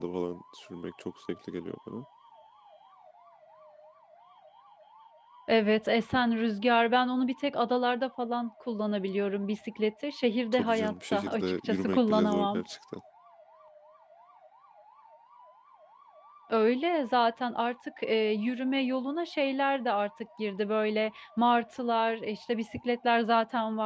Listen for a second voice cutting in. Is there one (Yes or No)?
Yes